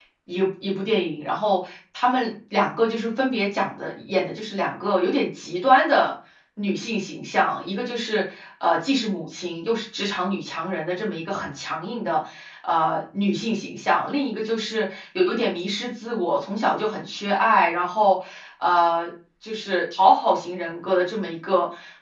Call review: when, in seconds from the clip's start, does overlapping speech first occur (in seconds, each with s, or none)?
none